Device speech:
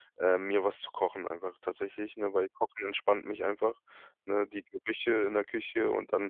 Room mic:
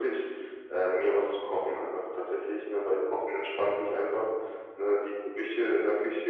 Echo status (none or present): present